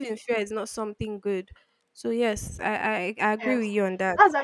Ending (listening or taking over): taking over